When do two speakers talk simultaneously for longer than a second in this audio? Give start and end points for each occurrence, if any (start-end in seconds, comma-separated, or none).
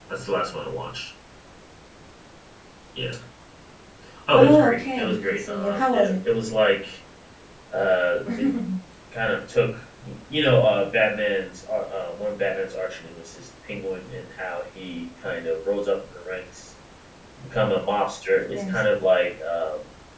4.3-6.1